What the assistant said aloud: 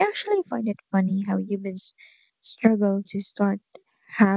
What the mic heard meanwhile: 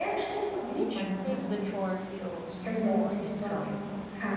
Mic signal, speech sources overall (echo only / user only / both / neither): both